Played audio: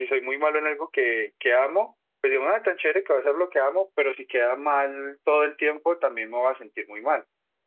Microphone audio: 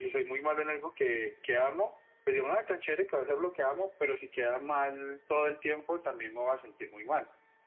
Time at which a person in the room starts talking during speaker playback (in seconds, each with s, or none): none